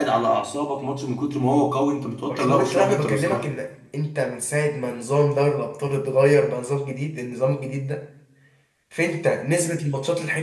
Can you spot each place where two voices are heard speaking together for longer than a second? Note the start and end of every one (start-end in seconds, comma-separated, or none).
2.2-3.4